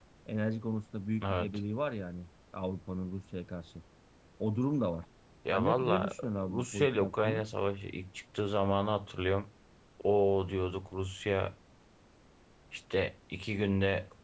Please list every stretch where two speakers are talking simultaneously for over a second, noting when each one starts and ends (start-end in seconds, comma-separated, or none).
5.5-7.4